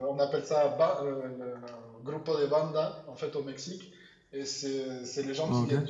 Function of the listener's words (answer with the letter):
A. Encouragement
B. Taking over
A